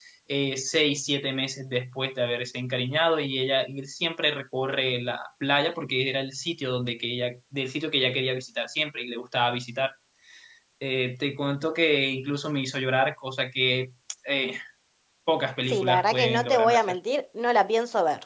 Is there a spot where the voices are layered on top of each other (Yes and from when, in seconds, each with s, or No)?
Yes, from 15.7 s